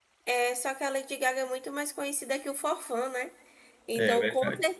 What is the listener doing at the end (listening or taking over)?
listening